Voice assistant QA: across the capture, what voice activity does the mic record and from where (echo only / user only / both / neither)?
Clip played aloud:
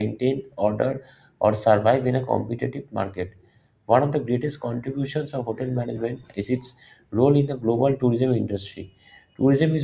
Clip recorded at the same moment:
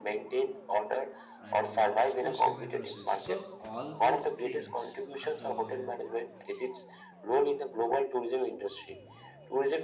both